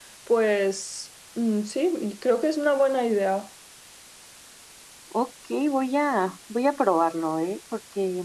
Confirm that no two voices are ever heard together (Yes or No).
Yes